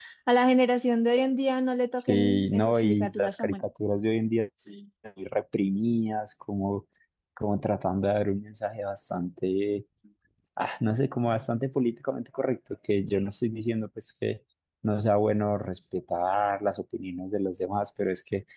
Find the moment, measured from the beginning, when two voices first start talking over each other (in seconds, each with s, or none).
2.0 s